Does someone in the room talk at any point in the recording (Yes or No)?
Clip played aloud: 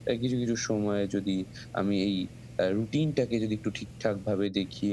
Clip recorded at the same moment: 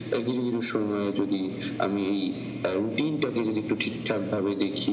No